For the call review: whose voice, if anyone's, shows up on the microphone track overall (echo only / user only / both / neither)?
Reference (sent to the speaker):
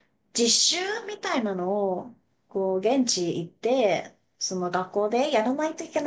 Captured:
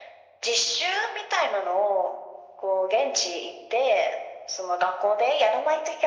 echo only